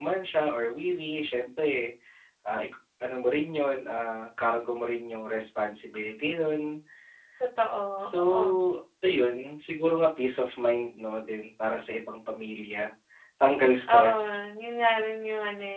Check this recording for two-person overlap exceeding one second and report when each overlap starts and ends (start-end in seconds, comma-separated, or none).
none